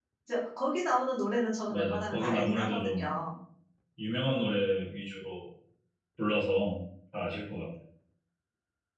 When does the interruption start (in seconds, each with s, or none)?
1.7 s